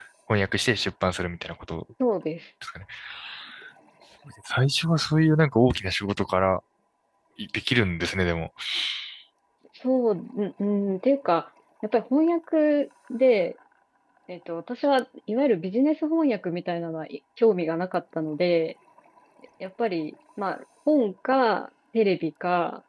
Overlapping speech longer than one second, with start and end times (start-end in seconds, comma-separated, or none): none